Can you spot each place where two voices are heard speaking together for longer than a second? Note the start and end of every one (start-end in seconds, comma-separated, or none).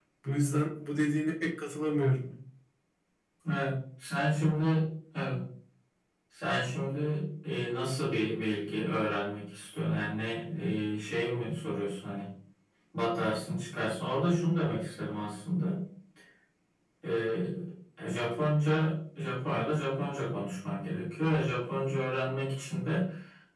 none